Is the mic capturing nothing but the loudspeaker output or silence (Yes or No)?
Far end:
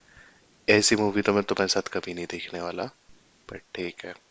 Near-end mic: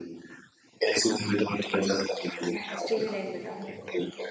No